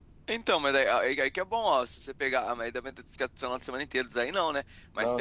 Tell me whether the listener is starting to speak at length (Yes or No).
No